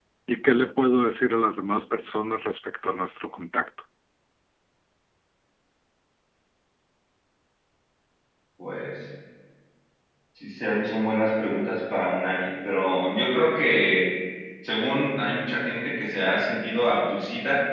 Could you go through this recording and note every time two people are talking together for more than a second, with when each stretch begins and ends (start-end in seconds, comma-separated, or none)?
none